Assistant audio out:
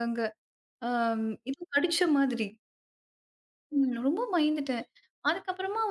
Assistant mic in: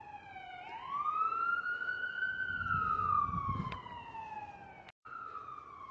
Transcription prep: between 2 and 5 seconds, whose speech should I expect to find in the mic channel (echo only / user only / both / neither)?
neither